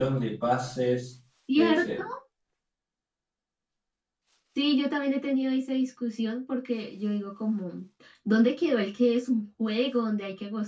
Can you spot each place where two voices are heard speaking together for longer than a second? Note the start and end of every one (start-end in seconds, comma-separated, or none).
none